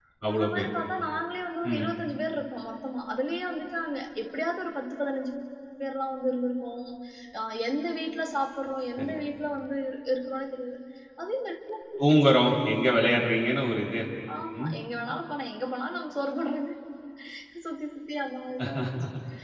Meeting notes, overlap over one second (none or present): none